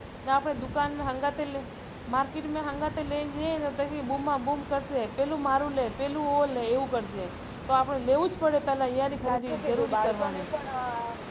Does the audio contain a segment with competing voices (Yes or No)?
Yes